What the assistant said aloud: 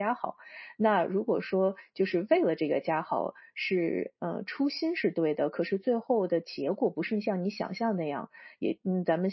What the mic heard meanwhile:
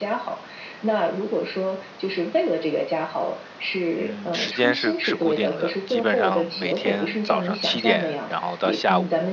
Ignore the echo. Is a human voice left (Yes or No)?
Yes